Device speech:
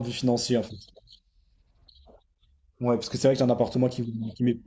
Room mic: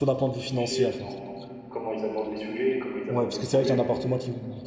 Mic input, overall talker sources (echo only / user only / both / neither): both